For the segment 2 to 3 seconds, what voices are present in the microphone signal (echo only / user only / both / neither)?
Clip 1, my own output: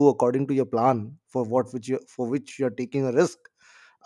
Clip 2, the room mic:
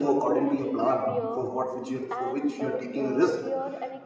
both